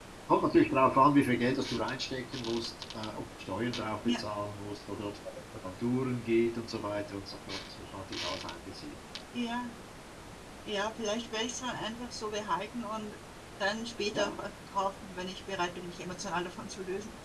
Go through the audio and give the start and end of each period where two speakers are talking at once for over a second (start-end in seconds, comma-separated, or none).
none